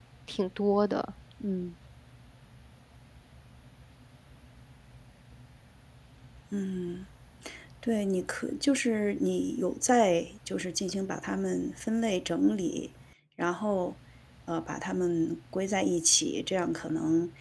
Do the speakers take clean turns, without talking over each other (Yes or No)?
Yes